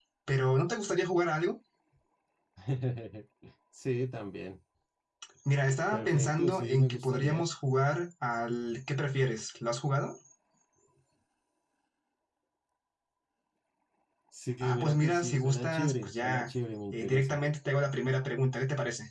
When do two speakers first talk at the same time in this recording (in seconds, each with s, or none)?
5.9 s